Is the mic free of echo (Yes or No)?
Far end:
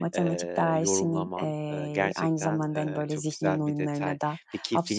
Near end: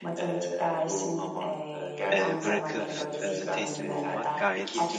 No